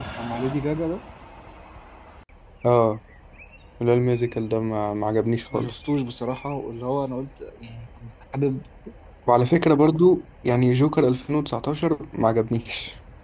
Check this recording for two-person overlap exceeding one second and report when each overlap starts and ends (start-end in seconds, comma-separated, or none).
none